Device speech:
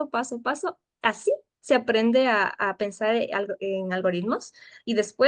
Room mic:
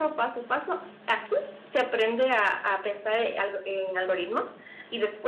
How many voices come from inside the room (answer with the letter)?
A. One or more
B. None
B